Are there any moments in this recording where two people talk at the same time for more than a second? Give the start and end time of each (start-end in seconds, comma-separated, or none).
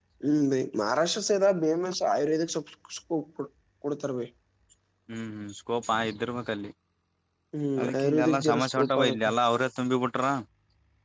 7.8-9.3